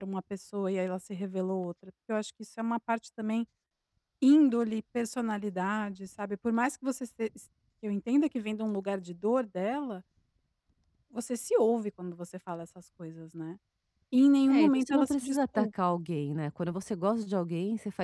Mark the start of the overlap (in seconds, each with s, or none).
14.5 s